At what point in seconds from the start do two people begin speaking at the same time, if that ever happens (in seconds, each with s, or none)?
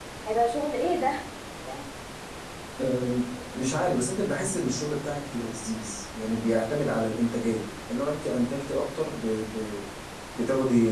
none